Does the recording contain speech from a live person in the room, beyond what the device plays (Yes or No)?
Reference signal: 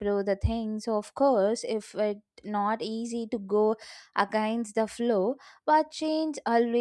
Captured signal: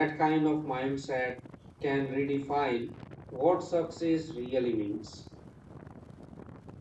Yes